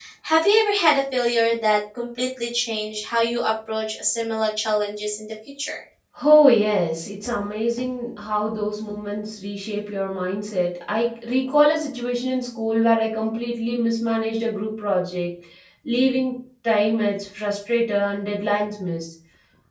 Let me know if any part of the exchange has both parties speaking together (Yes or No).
No